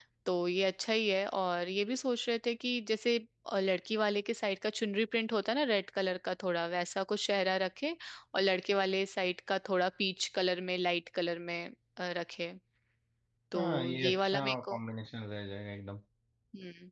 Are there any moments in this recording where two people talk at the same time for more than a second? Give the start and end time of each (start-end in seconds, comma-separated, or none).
13.6-14.8